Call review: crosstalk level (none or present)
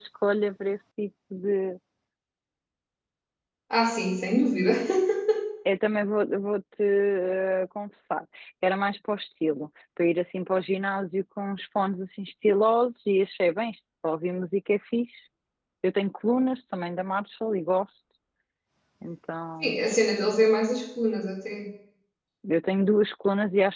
none